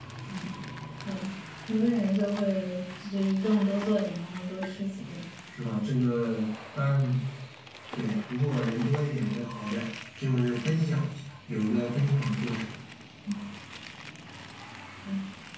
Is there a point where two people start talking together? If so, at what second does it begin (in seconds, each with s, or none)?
none